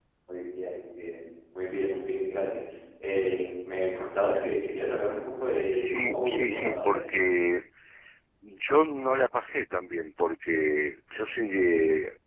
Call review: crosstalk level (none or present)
present